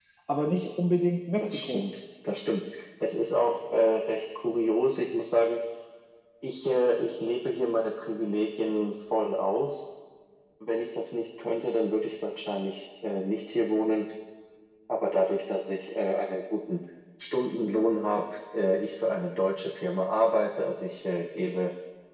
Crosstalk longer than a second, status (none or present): none